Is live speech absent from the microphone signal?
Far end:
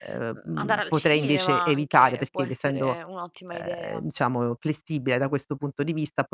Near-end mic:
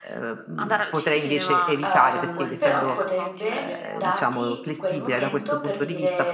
No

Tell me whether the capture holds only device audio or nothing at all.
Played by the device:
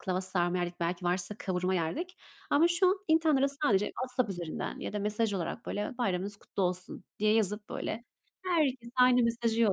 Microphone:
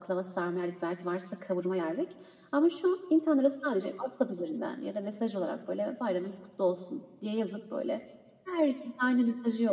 Yes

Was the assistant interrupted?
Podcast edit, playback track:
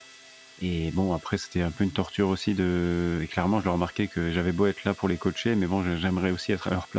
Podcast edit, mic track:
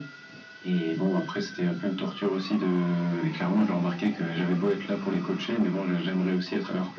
No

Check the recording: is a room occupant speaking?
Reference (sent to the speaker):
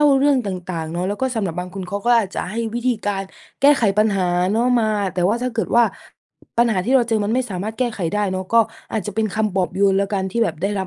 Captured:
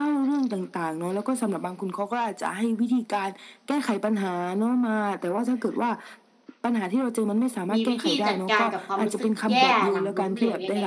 Yes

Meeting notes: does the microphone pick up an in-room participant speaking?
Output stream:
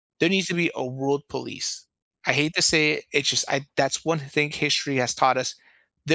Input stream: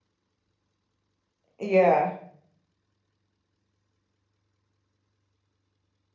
Yes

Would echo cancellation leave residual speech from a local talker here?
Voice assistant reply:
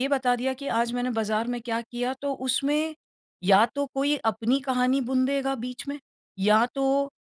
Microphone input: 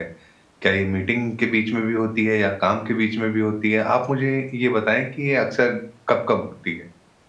Yes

